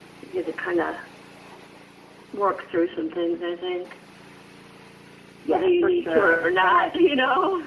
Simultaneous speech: Yes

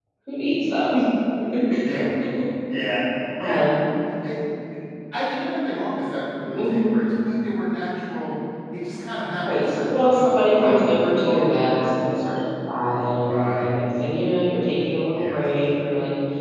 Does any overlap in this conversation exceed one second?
Yes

